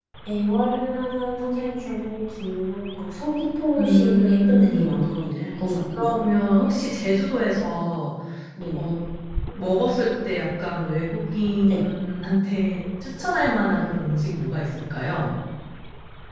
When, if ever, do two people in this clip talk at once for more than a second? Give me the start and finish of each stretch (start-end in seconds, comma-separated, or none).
3.8-5.1